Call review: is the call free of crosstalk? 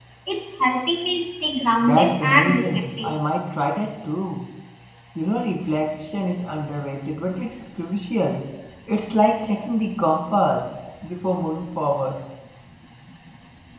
No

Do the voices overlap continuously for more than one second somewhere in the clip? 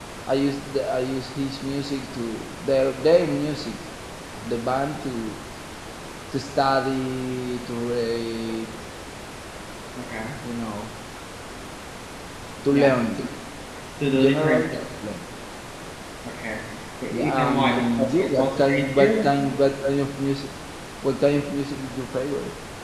Yes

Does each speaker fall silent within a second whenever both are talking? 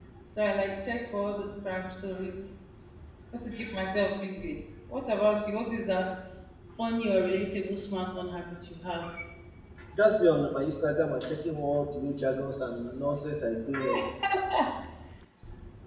Yes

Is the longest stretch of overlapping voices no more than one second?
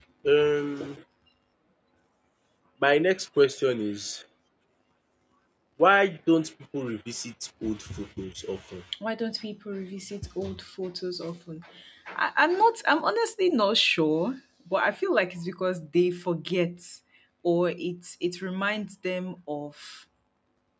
Yes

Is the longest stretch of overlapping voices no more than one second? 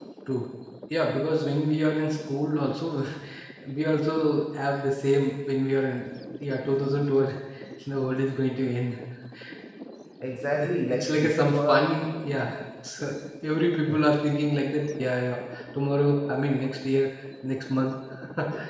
No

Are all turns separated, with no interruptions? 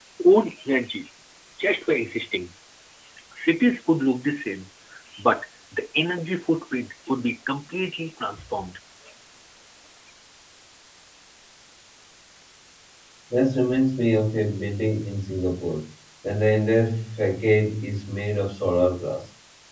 Yes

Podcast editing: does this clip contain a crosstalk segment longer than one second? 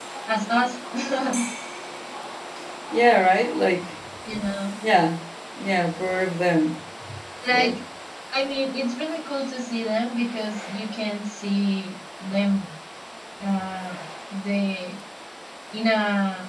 No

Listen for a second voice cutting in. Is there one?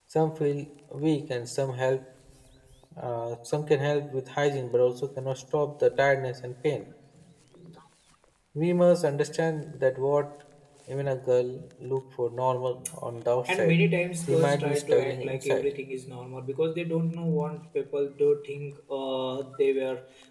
Yes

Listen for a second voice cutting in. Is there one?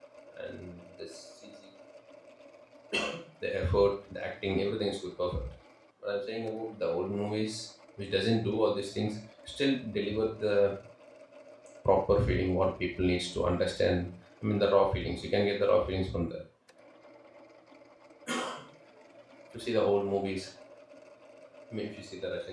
No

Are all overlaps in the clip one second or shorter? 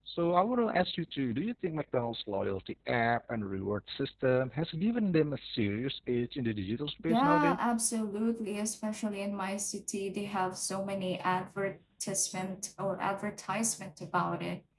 Yes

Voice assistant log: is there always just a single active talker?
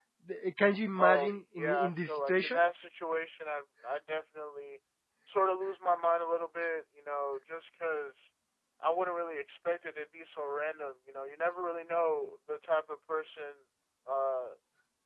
No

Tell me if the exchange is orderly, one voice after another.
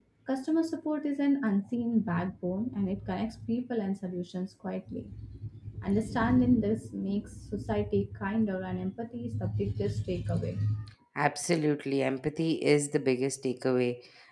Yes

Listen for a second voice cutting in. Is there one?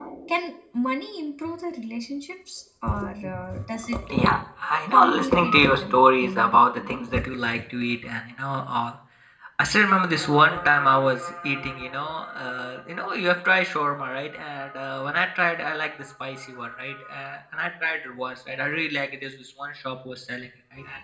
Yes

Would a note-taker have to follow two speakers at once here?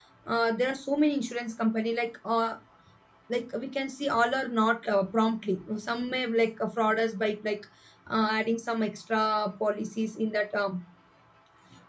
No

